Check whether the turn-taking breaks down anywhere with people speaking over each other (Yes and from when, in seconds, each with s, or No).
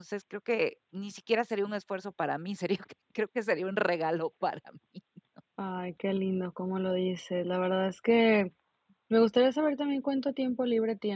No